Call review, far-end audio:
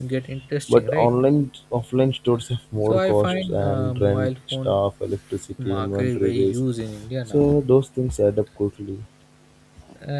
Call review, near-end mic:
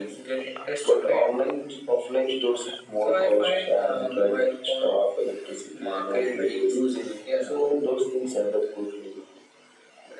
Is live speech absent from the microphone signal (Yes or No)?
Yes